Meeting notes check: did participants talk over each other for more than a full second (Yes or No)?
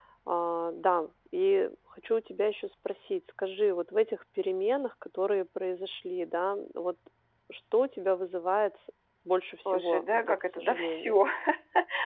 Yes